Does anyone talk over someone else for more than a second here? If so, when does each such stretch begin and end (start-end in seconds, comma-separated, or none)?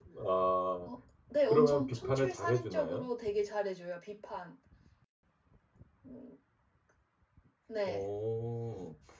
1.5-3.1